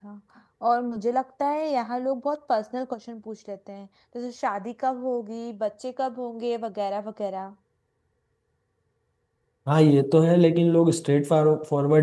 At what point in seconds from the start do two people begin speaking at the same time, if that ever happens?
none

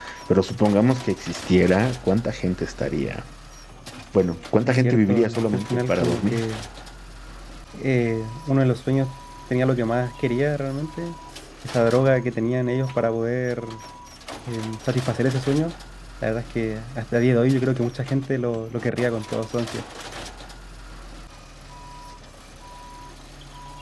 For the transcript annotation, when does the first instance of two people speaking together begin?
4.7 s

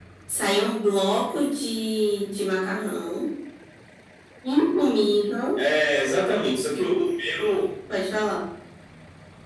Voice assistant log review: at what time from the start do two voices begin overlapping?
none

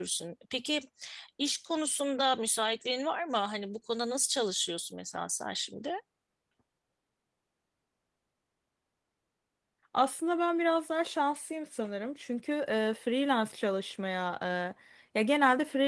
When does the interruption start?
none

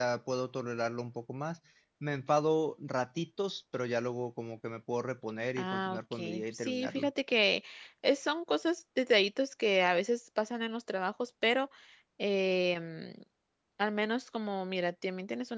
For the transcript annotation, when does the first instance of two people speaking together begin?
5.6 s

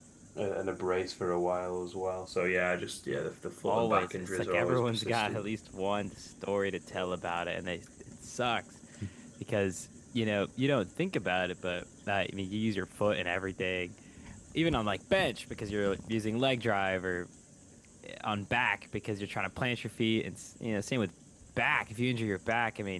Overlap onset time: 3.6 s

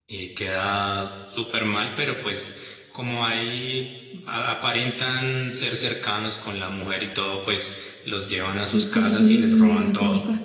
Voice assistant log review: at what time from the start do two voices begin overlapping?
8.7 s

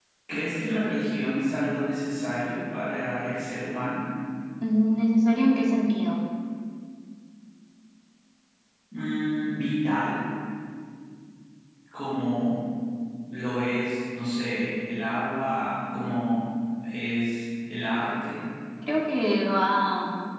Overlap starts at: none

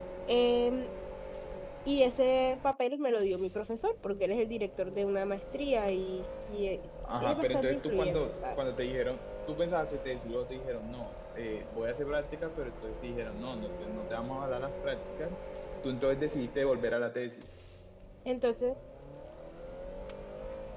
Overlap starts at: 7.0 s

